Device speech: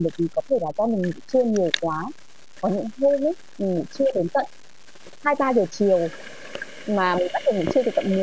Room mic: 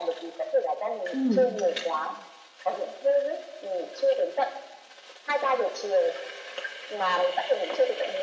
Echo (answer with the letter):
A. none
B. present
B